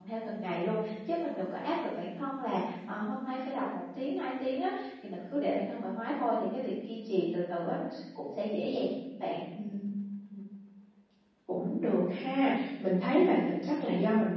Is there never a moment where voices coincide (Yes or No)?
Yes